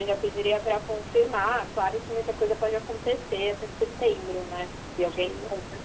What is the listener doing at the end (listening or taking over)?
listening